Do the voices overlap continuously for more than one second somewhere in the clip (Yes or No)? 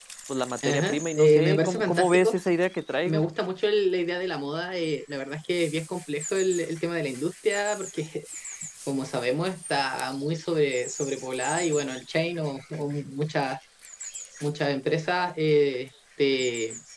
Yes